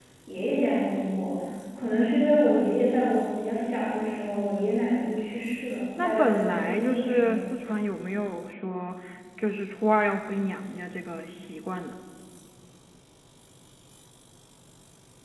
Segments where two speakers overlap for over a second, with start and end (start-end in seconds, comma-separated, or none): 6.0-7.4